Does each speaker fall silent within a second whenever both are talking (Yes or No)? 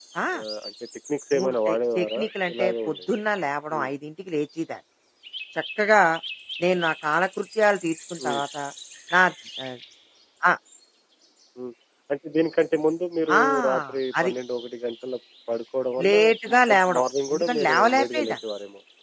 No